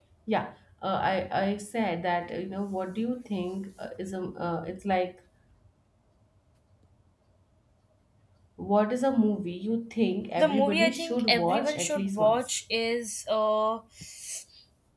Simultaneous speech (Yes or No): Yes